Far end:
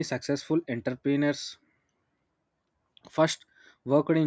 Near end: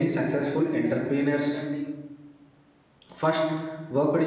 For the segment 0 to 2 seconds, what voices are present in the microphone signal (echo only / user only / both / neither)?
both